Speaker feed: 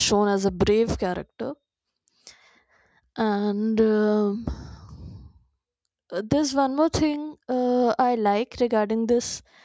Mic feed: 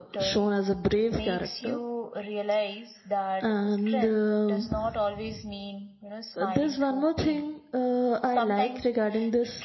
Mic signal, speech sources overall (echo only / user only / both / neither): both